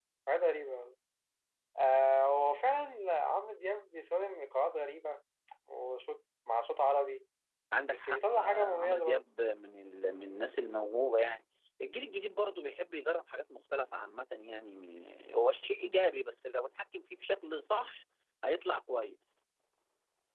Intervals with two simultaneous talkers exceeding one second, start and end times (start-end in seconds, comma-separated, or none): 7.9-9.2